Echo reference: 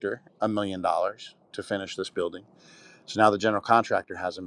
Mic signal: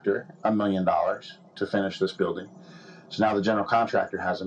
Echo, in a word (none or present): present